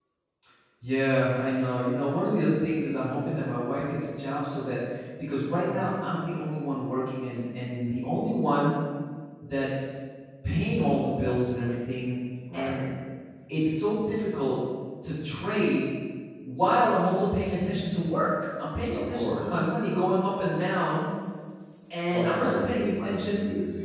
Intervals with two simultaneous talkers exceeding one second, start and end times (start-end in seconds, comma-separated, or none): 22.1-23.4